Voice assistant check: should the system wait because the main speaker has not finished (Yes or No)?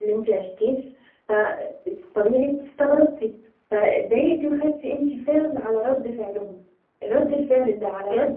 Yes